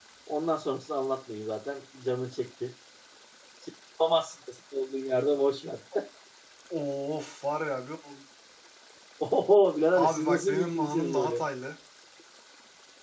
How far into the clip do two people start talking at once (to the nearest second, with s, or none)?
10 s